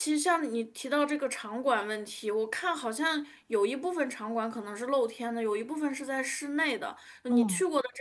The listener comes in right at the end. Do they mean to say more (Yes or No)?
No